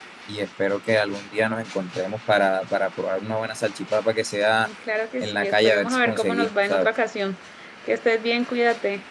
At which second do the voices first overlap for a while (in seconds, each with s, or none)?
5.2 s